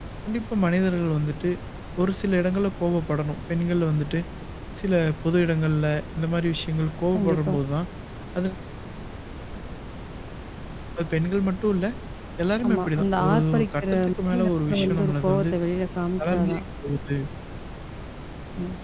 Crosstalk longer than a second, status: present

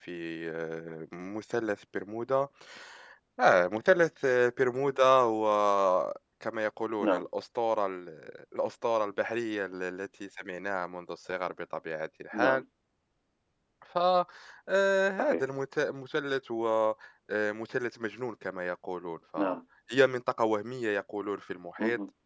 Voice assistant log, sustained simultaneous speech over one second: none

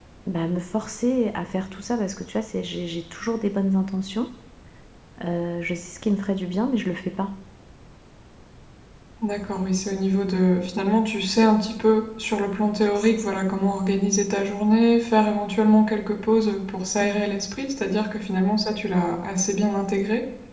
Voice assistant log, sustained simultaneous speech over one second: none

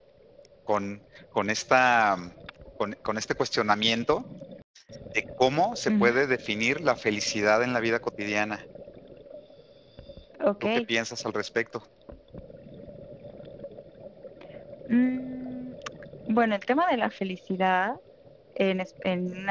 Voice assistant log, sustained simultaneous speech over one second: none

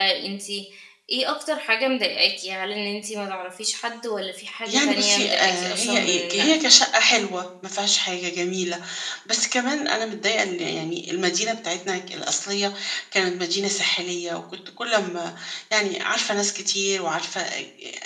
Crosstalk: present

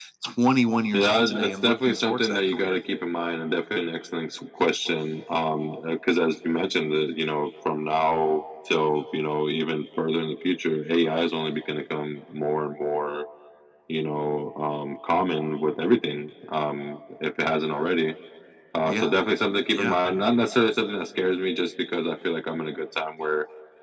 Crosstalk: present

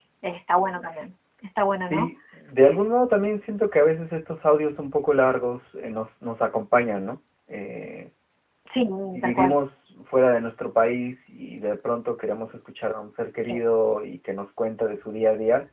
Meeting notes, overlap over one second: none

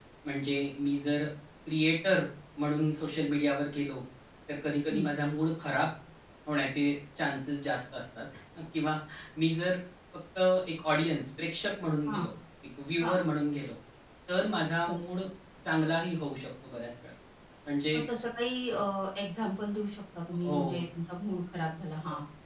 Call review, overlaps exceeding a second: none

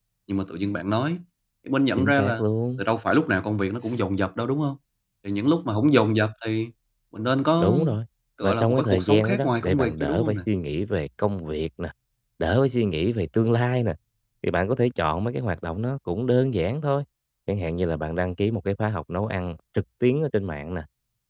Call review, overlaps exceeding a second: present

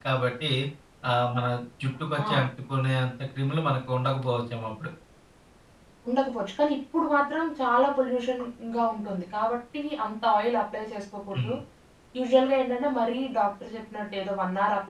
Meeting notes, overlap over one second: none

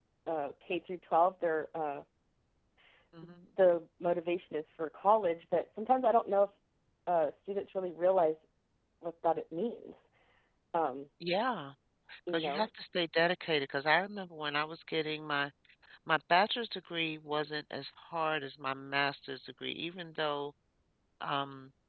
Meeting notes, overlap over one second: none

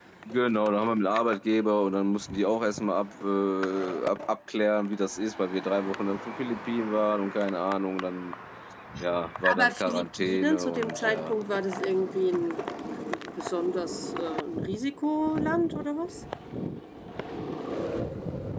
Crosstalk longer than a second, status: present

